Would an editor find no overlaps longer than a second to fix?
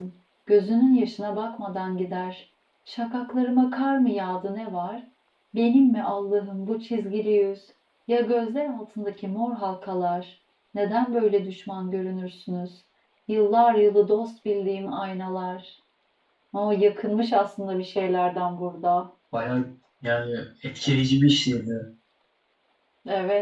Yes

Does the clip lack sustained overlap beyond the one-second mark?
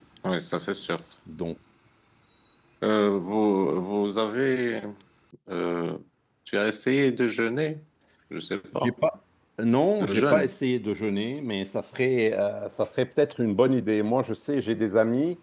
Yes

